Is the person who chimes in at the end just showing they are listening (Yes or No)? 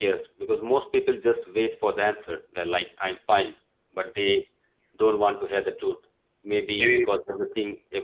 Yes